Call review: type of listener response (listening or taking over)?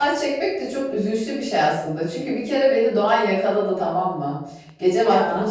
listening